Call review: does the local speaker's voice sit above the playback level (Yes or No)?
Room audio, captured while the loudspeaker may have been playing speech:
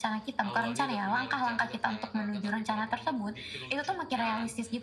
No